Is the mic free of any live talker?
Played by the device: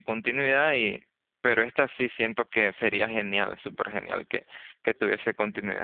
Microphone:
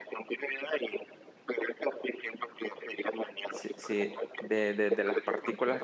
No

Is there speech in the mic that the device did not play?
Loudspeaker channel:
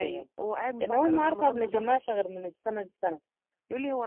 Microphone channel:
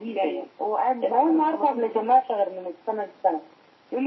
No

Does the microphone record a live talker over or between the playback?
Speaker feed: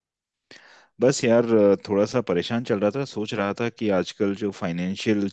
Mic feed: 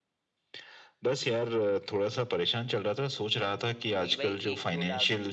Yes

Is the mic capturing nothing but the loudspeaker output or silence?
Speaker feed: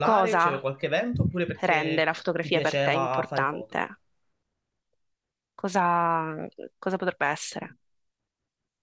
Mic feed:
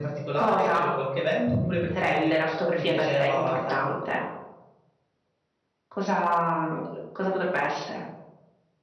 Yes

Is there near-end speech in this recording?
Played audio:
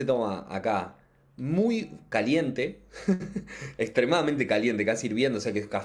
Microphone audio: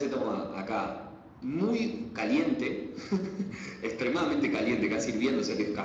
No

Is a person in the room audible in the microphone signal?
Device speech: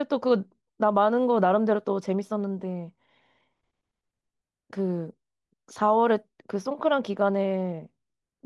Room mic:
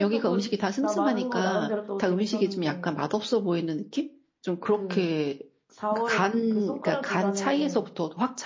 Yes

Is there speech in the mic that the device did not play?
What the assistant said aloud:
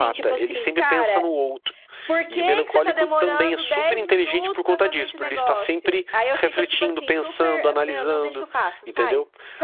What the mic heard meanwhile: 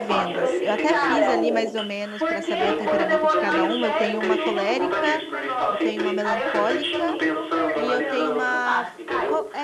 Yes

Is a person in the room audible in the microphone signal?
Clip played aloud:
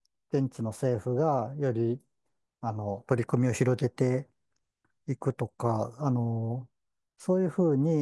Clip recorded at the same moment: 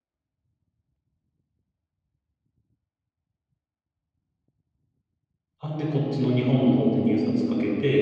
Yes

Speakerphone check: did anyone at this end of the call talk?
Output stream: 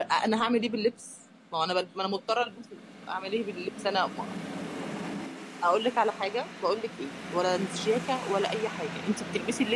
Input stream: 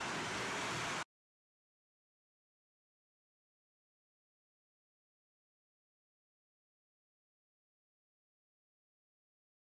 No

